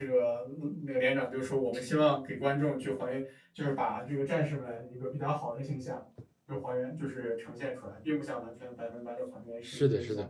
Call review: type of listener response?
taking over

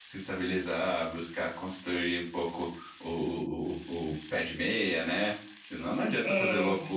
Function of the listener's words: listening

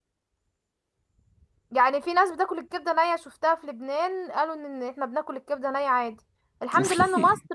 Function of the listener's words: listening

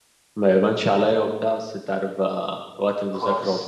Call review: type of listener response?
listening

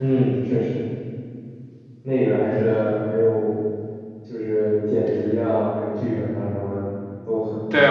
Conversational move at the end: taking over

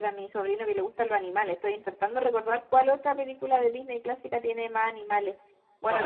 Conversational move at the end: taking over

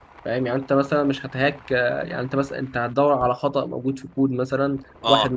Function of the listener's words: listening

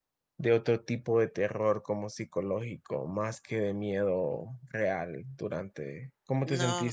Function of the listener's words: taking over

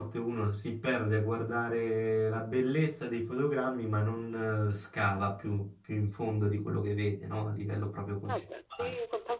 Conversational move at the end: taking over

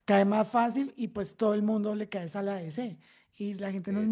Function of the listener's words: listening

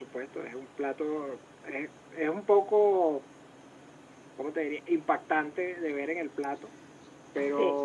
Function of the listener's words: listening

